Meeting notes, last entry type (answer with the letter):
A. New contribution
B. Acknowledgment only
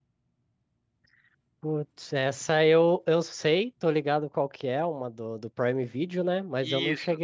B